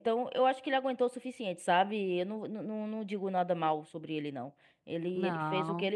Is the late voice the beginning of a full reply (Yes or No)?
No